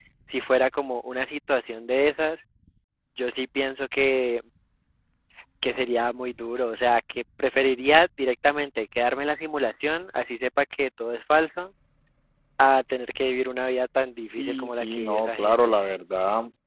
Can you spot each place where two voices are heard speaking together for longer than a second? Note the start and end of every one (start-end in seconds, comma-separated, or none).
14.4-15.7